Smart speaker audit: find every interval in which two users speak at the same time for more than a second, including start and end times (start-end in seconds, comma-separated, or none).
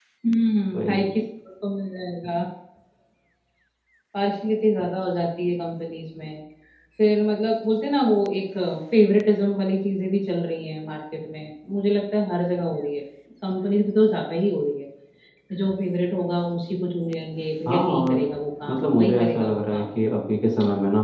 18.7-19.9